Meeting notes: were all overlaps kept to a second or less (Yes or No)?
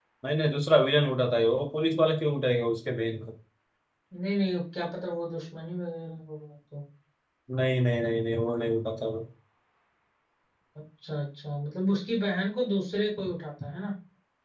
Yes